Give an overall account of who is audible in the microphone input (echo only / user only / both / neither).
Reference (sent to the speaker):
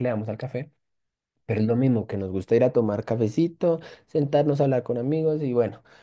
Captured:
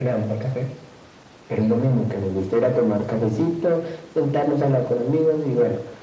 echo only